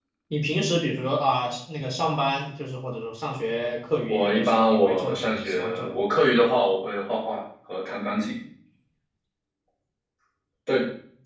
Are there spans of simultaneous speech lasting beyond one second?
Yes, from 4.1 s

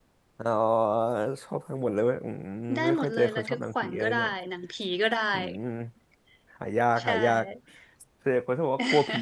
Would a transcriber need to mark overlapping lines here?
Yes, from 2.8 s

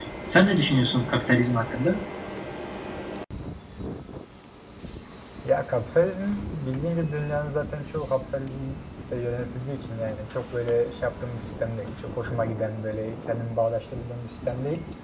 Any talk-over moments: No

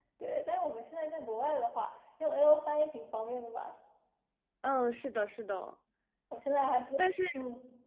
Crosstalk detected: No

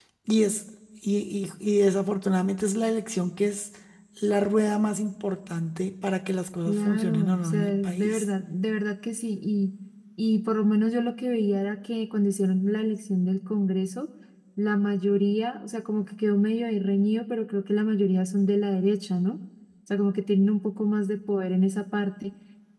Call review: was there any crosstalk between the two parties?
Yes, from 6.7 s

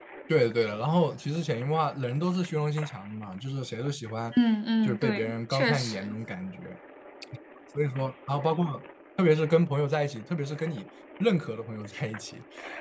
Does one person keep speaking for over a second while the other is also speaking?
Yes, from 4.8 s

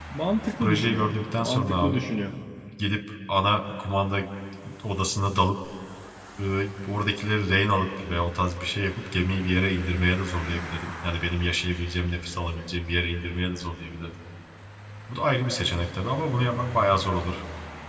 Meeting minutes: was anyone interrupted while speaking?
Yes, from 0.6 s

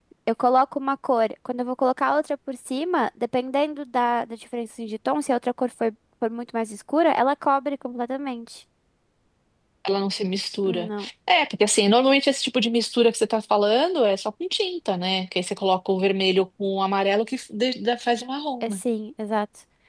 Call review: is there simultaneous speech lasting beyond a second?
No

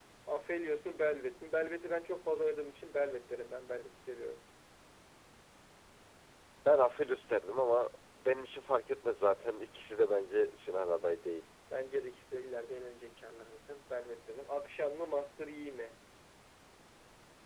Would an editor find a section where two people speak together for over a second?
No

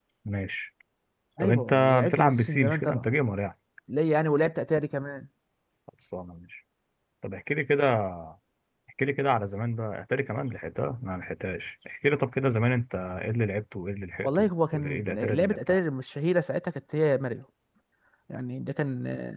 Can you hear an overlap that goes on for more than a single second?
Yes, from 1.4 s

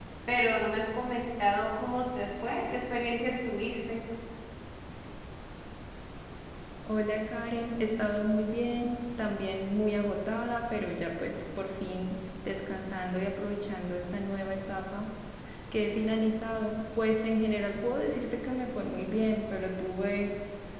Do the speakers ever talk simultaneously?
No

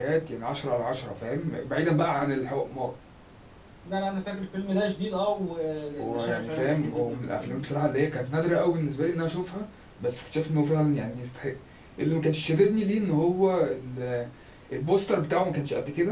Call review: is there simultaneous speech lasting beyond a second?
Yes, from 6.0 s

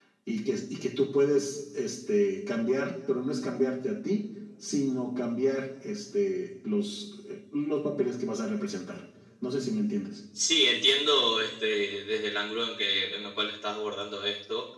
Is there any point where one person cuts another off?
No

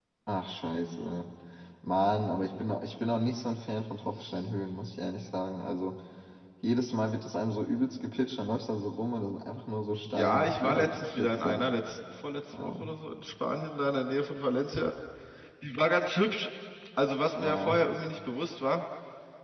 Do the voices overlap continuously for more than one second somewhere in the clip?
Yes, from 10.1 s

